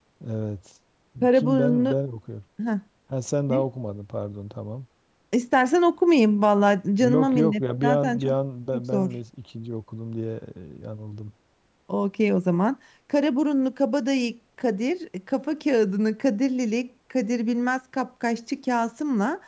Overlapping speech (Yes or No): Yes